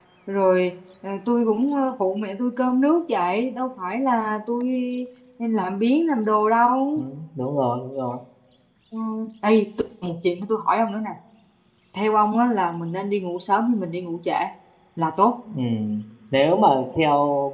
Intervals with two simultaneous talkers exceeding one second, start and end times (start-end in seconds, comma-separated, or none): none